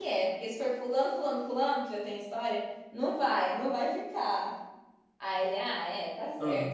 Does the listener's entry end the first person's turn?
No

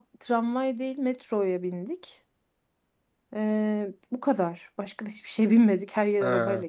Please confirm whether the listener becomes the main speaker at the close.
Yes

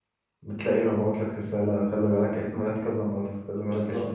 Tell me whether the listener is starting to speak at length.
Yes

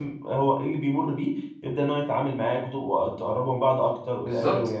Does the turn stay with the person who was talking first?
No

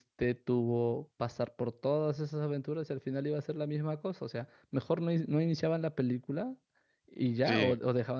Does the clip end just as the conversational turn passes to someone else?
No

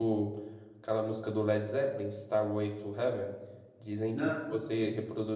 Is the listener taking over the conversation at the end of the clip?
No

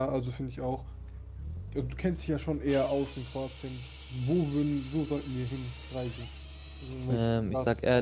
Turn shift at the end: Yes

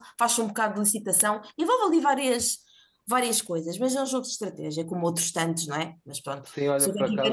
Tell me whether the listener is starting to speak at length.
Yes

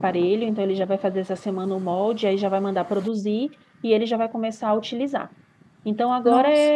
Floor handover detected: No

